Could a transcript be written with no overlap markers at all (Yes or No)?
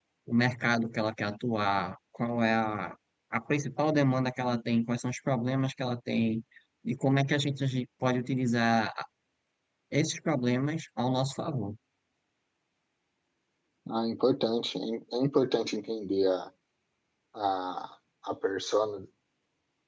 Yes